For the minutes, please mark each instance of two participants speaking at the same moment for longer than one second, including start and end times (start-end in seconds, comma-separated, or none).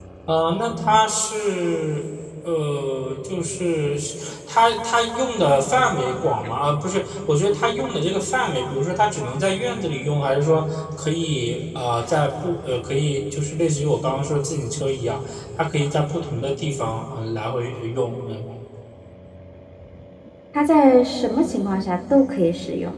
none